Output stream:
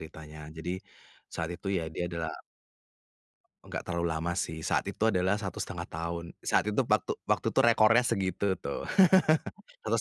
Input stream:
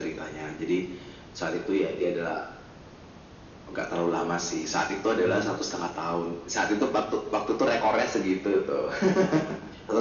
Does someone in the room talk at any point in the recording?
Yes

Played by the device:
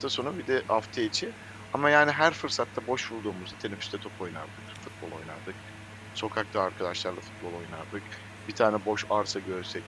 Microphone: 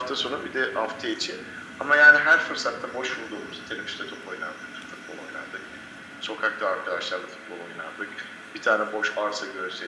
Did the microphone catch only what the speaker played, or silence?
Yes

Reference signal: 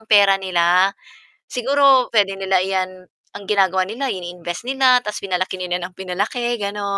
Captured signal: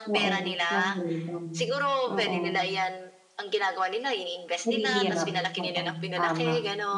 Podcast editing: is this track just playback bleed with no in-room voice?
No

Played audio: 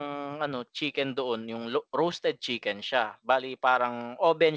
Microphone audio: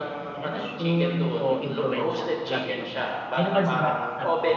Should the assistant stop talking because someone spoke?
Yes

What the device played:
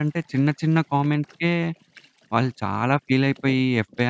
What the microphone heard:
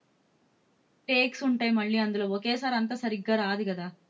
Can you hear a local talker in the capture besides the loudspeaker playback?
Yes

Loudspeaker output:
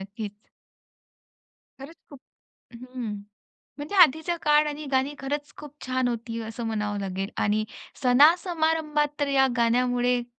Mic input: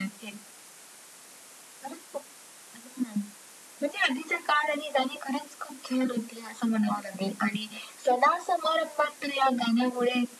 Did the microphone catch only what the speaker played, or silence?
Yes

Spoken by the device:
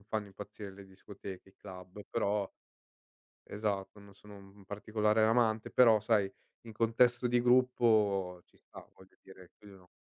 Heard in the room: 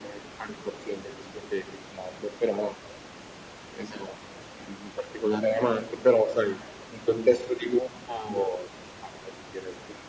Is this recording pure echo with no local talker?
Yes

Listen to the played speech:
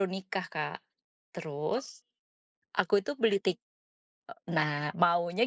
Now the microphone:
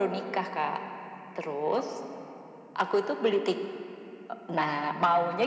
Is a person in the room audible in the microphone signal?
No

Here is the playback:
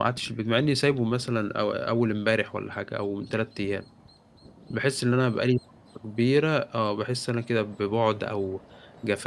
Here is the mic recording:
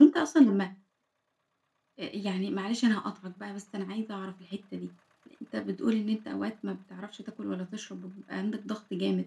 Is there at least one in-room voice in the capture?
Yes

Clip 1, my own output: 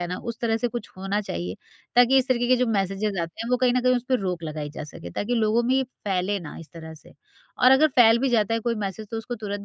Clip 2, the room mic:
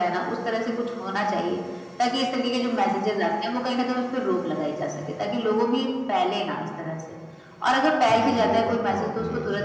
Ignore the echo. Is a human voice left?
Yes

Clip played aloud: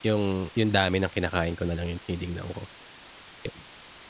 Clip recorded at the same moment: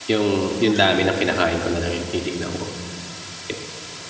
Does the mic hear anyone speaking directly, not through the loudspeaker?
Yes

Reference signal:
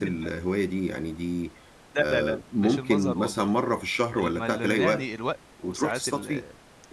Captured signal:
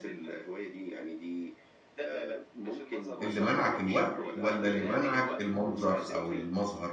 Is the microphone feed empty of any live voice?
No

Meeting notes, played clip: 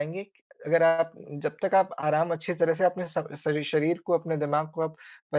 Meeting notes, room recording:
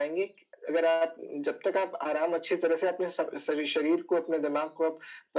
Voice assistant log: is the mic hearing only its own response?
Yes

